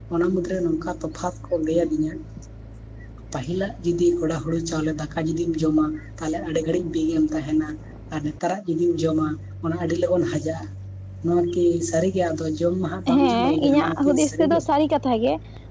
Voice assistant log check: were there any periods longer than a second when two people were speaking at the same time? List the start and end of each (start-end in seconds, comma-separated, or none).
13.1-14.6